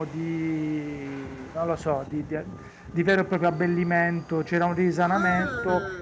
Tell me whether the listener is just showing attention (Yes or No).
Yes